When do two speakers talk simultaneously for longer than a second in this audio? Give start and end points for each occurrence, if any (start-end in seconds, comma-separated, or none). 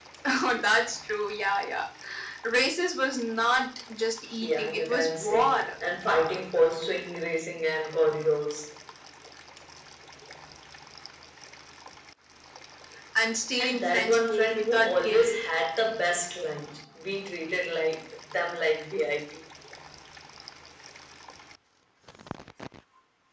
4.4-5.7, 13.6-15.4